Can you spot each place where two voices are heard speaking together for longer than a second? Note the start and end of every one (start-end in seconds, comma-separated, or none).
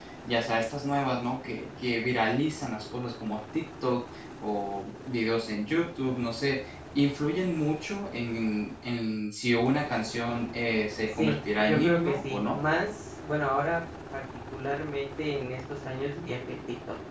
11.1-12.6